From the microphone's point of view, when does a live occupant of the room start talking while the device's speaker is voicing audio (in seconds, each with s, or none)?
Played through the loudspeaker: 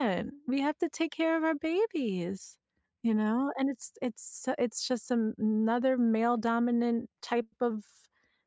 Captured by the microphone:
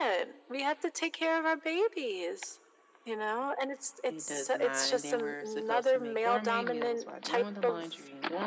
4.1 s